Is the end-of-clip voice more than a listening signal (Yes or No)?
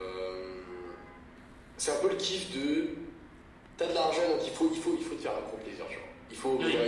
No